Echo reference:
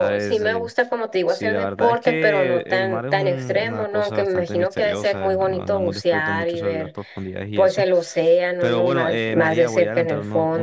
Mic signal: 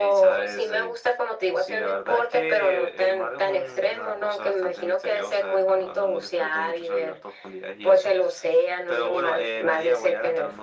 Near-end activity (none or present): none